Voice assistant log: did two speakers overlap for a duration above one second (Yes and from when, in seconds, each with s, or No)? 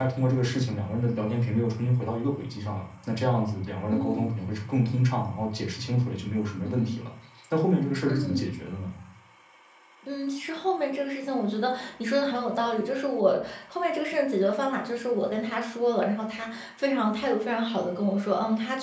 No